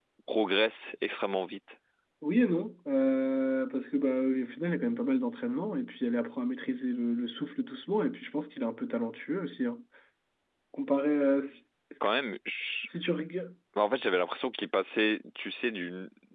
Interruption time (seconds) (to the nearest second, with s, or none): none